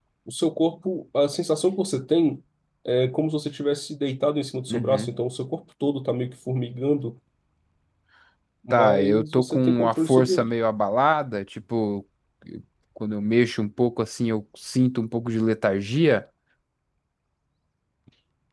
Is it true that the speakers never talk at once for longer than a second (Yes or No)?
No